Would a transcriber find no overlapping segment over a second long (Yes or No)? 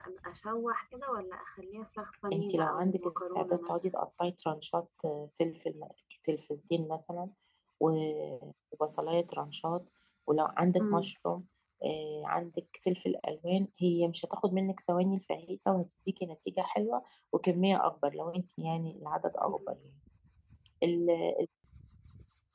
No